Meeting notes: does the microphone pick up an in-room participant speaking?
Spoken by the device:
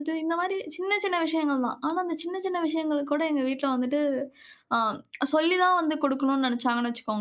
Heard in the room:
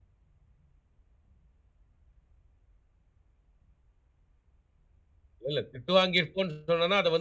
Yes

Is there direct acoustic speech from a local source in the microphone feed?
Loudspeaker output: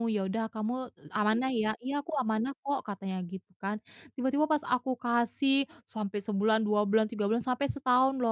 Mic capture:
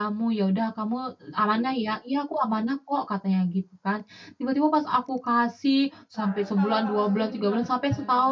Yes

